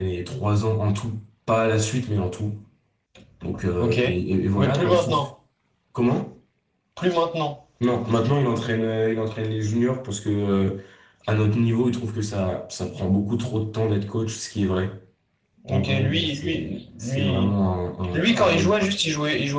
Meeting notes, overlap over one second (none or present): present